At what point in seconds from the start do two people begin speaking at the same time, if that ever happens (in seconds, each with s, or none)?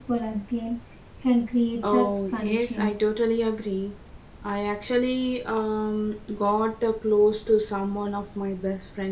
1.9 s